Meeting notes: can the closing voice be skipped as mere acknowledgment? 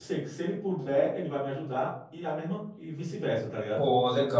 No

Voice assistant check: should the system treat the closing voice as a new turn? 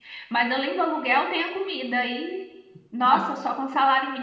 No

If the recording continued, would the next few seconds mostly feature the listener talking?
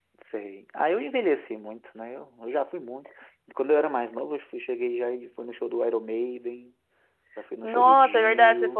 Yes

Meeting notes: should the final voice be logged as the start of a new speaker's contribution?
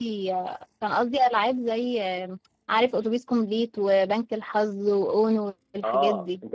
Yes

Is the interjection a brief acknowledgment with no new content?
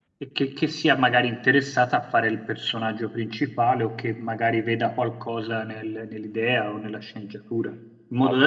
Yes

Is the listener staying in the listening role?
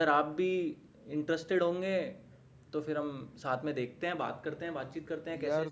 No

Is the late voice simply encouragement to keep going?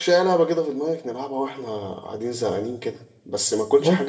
Yes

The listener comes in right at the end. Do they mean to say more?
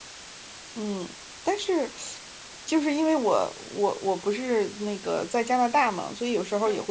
No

